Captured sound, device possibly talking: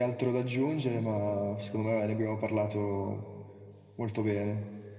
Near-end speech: none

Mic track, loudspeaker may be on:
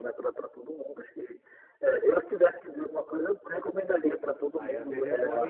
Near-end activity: present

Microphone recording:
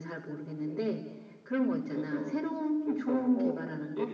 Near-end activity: none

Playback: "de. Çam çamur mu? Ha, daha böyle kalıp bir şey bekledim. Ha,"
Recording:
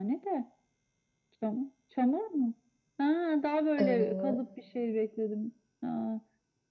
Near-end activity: present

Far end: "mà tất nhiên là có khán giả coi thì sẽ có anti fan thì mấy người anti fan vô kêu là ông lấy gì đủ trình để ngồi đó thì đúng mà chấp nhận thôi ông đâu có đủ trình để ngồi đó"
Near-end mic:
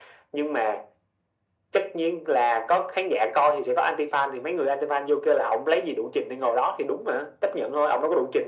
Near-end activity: none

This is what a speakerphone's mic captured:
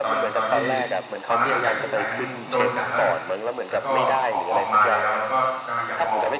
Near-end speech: present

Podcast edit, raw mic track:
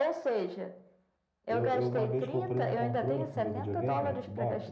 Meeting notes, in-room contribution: present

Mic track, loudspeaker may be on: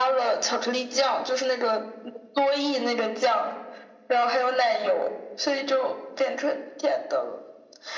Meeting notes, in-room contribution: none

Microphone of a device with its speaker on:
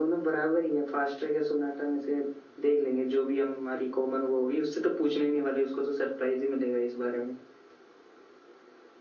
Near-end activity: none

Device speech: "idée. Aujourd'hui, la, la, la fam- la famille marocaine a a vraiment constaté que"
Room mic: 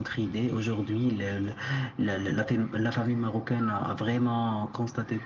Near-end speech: none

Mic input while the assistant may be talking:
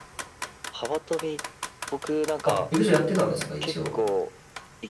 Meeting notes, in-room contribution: present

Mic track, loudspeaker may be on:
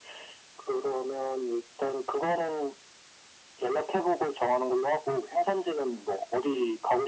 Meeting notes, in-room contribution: none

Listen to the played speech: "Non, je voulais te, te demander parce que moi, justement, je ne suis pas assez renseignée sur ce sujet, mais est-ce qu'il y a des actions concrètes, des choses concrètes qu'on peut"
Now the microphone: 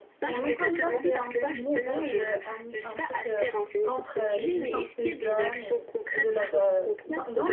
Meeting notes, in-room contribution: present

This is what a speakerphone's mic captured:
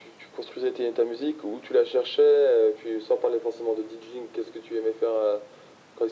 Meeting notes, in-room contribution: none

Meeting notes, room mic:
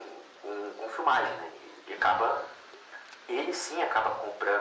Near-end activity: none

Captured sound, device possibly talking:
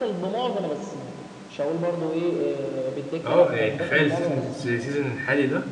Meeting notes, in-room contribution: present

